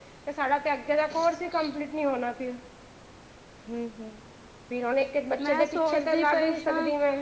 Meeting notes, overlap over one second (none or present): present